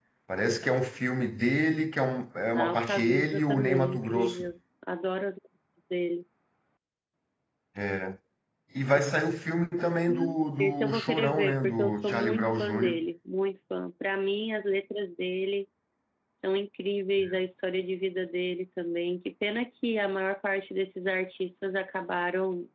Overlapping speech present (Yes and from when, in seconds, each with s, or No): Yes, from 2.5 s